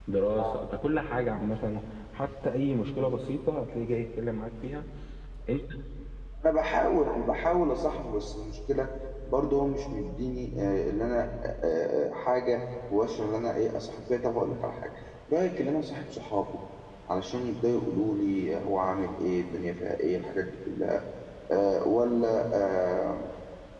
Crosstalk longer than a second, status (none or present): none